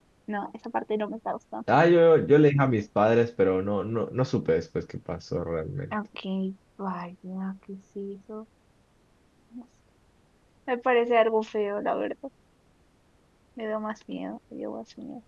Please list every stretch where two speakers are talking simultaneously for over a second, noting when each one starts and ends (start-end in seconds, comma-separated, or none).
none